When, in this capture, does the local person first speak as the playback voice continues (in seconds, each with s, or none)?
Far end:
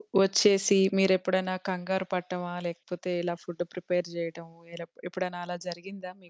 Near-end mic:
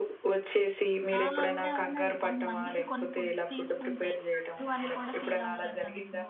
1.1 s